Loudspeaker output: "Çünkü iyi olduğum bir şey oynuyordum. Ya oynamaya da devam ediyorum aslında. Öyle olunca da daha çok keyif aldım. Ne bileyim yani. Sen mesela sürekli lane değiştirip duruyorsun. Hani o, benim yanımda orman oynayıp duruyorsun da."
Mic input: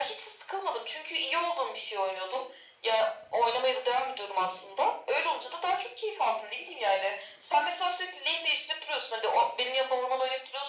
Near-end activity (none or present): none